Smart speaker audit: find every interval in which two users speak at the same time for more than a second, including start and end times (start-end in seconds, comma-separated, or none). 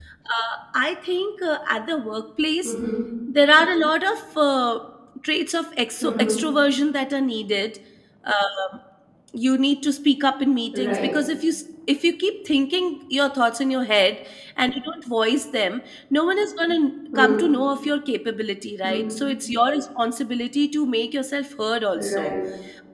none